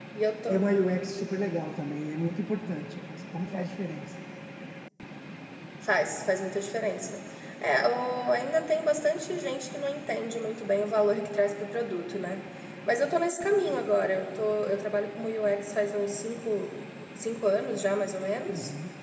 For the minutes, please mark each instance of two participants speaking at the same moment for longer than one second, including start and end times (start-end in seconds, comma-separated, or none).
none